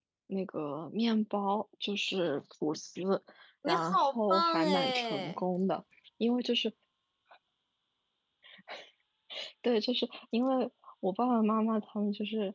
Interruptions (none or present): present